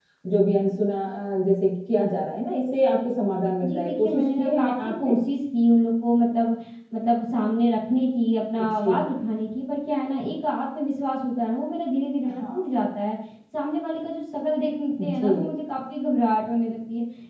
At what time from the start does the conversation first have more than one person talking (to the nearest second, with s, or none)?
4 s